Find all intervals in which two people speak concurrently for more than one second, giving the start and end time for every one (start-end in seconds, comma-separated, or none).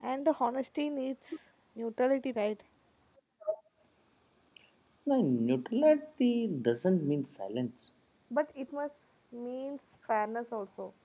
none